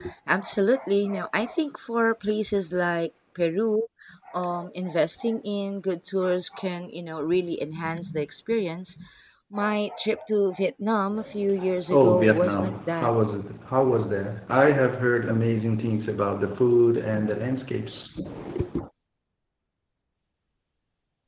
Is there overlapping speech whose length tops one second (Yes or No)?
Yes